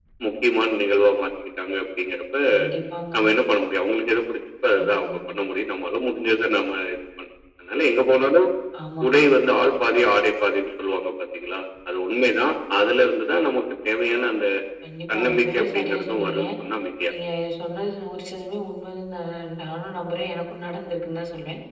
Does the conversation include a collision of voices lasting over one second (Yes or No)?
Yes